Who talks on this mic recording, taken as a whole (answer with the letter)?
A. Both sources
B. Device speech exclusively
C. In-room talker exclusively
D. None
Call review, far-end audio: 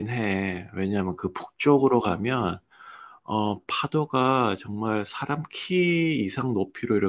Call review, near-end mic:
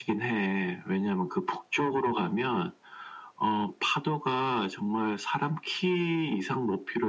B